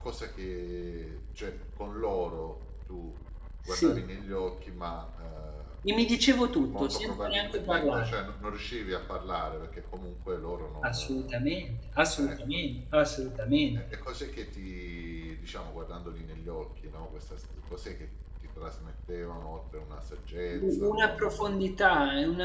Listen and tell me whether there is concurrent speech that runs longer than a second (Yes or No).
Yes